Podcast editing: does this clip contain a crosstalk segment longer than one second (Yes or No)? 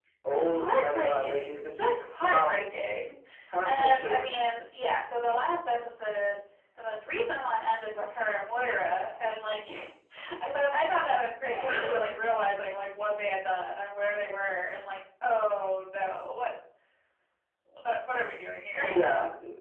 Yes